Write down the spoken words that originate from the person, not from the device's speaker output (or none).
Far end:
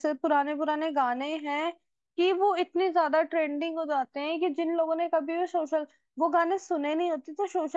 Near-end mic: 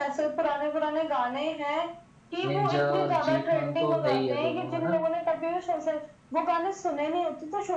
निंजा और जी खान तो है ही है दोनों है ना